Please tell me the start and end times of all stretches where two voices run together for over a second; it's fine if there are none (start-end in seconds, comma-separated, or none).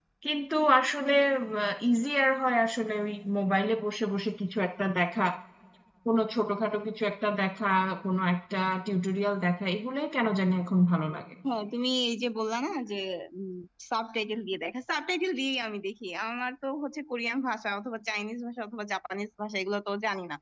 none